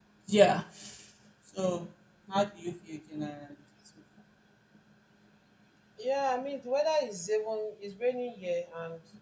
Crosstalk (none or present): none